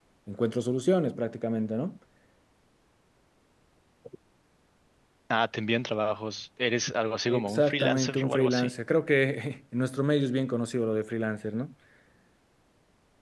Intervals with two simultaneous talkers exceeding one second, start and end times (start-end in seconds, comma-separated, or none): 7.3-8.7